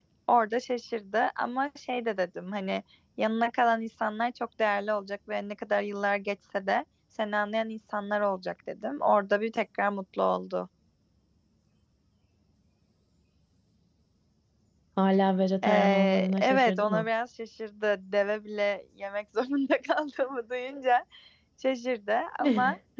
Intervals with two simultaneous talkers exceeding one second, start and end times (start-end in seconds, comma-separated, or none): 15.6-17.1